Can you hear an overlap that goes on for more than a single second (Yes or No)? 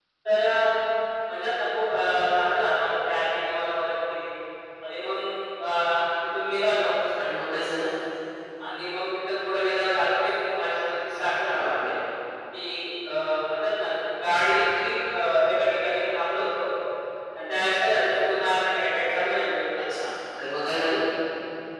No